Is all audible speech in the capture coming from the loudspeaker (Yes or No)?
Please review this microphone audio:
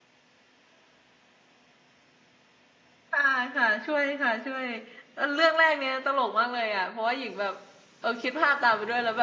No